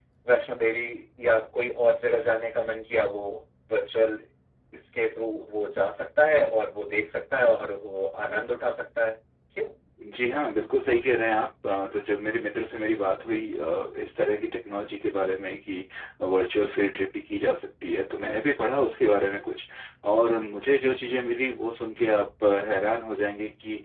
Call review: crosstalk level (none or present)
none